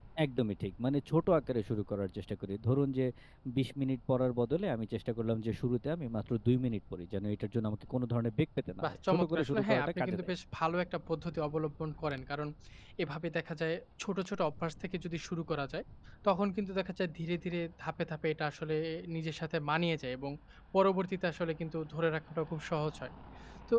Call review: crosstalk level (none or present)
present